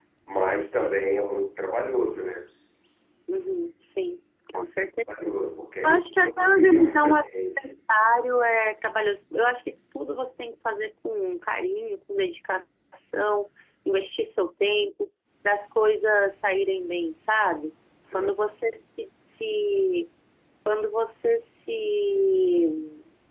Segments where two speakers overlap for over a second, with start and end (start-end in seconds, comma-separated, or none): 5.8-7.1